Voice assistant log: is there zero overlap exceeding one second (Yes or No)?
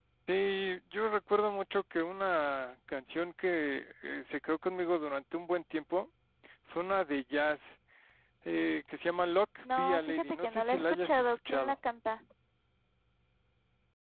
No